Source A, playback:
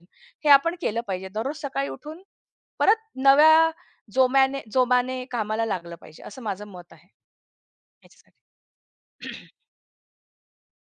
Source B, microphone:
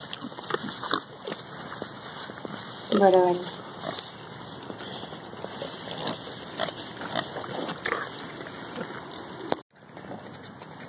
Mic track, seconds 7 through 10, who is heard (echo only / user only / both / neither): neither